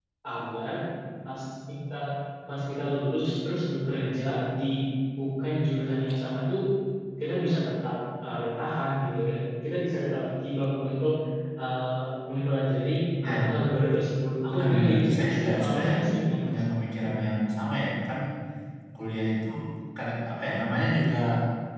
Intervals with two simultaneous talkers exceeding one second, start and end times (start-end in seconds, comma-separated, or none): 14.5-15.9